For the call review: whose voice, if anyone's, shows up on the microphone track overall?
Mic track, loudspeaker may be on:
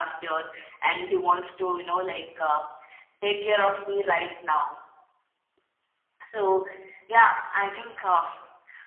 echo only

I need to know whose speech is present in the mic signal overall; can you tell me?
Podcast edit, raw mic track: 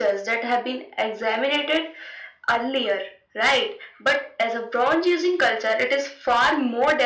echo only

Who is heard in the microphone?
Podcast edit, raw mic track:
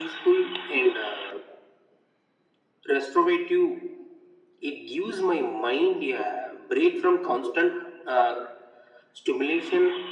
echo only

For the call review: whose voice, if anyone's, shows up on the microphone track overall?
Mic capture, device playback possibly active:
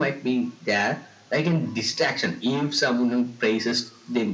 echo only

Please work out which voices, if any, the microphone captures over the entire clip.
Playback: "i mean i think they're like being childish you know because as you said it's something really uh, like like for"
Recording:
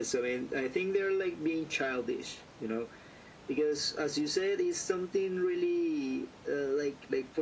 echo only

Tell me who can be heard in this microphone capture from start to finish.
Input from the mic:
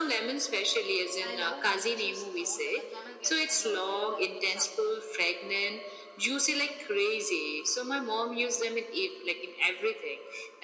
both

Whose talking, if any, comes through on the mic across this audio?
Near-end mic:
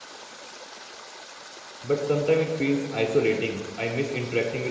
user only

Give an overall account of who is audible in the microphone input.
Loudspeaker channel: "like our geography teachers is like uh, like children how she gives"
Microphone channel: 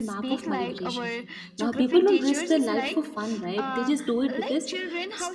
both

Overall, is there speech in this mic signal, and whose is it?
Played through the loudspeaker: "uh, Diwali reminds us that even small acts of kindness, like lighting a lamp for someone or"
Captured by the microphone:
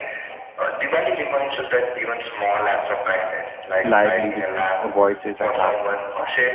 both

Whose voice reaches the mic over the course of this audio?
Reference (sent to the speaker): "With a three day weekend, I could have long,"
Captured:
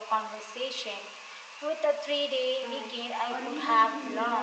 both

